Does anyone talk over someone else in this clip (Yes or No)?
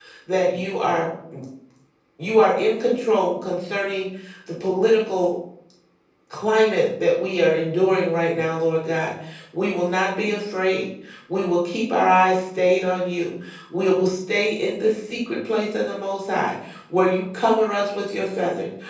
No